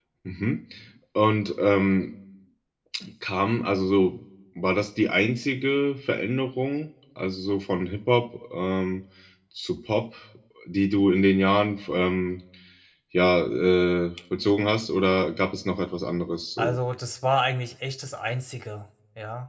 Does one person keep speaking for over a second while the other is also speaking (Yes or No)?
No